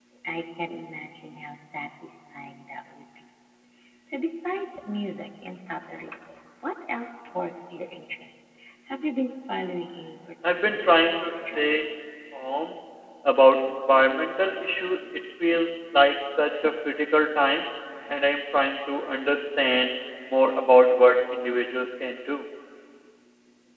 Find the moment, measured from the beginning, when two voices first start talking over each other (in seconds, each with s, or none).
10.4 s